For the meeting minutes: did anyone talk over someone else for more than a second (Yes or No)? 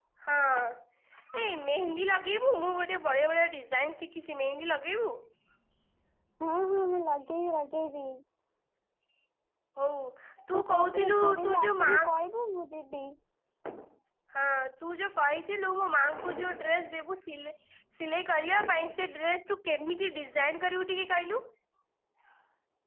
Yes